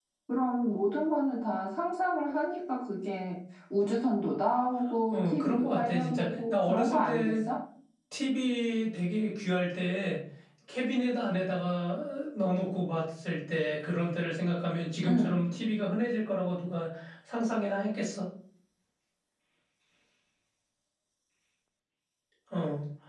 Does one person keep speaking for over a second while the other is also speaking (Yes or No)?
Yes